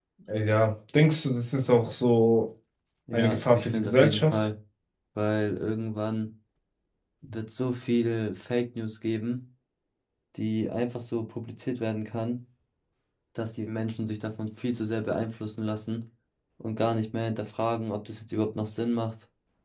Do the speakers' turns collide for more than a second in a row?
Yes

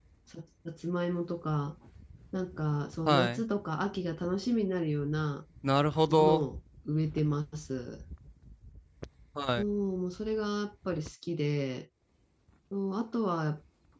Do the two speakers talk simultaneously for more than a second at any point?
No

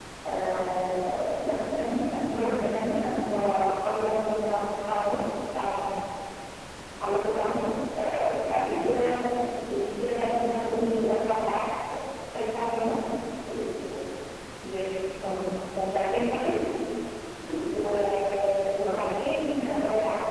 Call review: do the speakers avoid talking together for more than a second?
Yes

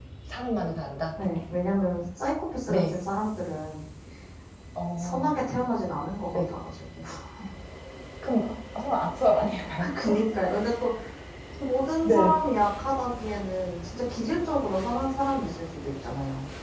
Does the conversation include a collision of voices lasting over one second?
No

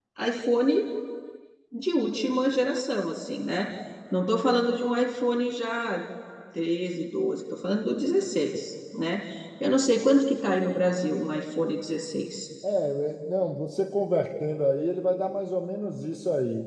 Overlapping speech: No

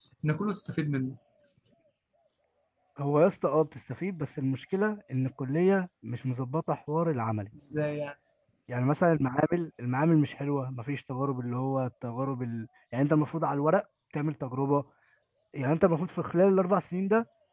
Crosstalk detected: No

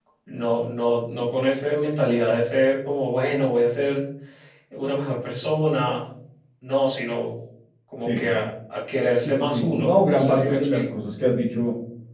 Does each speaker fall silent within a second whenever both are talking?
No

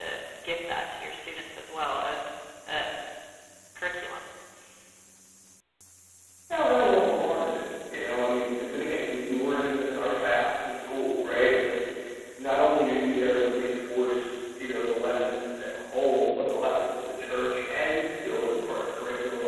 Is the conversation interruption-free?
Yes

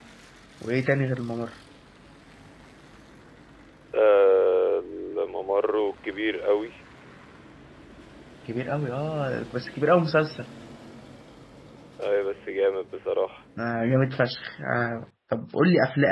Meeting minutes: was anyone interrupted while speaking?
No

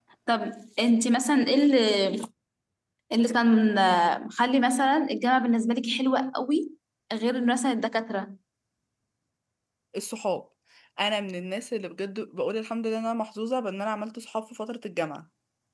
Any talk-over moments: No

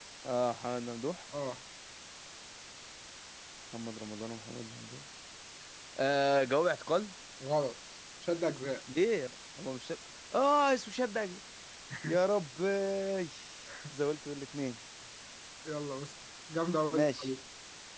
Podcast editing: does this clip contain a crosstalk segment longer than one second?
No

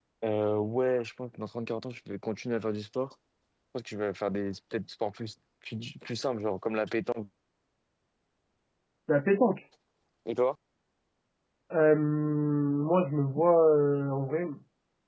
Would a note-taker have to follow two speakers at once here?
No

